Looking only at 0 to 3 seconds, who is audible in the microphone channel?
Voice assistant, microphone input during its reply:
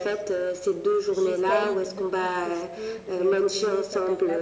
both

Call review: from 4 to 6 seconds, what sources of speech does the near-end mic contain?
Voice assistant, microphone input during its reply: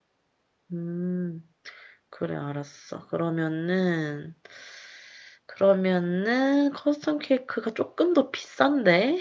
user only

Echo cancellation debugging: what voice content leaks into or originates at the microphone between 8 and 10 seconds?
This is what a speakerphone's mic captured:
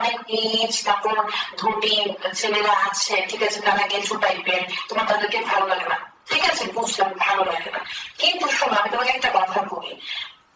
echo only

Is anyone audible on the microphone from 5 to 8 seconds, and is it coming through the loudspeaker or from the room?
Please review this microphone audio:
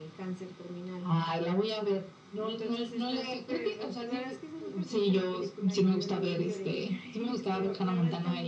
echo only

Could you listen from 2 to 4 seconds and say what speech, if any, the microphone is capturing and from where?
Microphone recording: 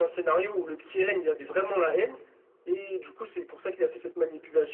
echo only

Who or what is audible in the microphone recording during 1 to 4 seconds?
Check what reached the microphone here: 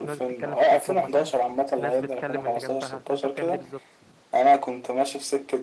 both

